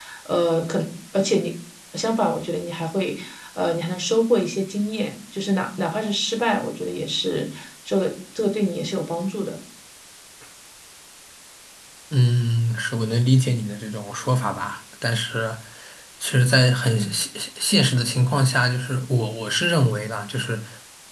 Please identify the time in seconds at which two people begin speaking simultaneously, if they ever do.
none

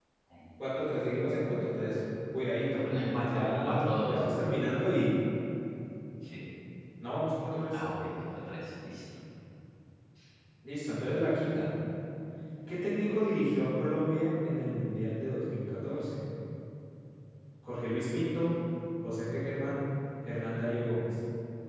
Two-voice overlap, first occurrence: 2.8 s

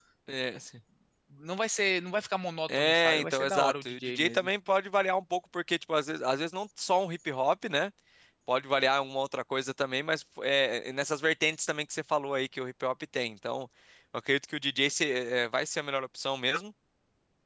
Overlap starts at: 2.7 s

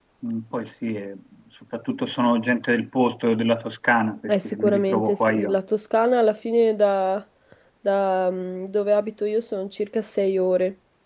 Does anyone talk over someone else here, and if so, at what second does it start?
4.3 s

